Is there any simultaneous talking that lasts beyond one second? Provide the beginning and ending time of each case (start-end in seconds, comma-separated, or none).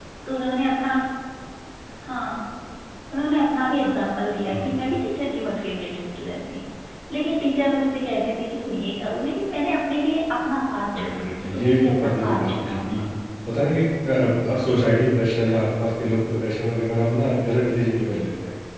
11.0-13.0